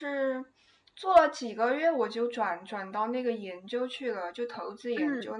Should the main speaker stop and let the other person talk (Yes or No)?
No